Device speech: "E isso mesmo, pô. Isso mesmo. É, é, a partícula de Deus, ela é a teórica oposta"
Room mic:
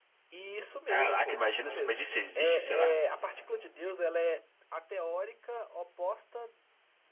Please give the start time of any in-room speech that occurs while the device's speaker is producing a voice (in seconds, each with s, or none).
0.9 s